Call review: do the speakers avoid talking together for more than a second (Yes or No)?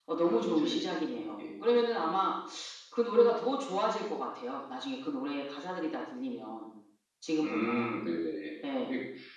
No